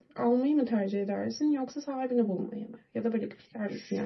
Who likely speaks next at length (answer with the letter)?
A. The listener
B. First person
A